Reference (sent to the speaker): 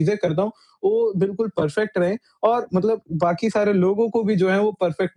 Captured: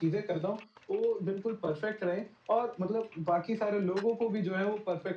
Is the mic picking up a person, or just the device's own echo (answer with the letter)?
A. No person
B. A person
A